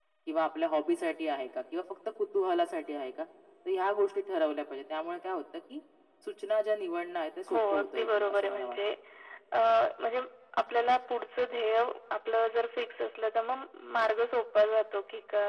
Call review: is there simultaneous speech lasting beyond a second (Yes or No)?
Yes